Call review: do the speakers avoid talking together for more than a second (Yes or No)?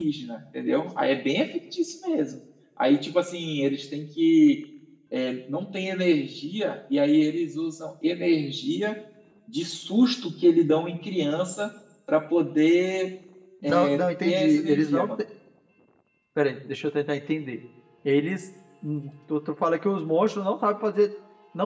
No